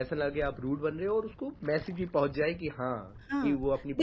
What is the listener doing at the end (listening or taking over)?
taking over